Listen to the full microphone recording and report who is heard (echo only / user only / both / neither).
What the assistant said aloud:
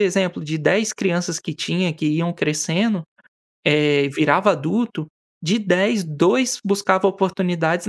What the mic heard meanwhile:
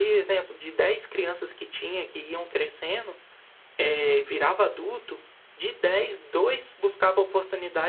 echo only